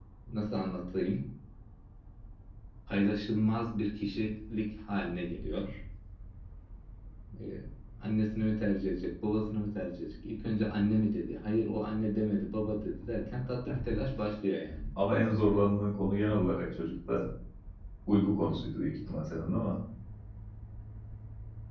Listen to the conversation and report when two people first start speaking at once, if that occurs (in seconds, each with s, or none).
none